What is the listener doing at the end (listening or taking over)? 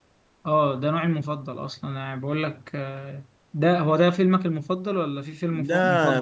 taking over